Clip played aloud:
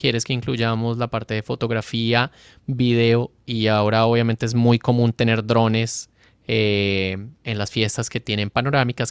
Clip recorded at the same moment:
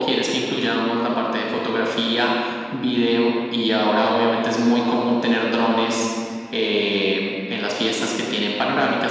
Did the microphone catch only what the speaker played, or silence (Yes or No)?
Yes